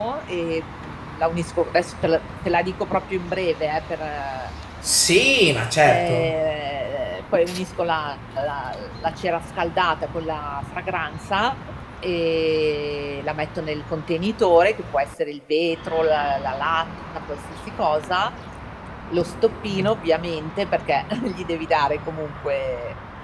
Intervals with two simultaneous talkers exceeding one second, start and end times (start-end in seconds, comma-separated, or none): none